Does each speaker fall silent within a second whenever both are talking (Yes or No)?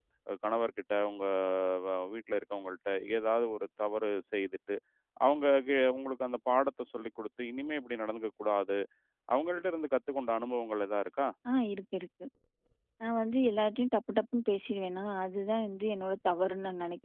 Yes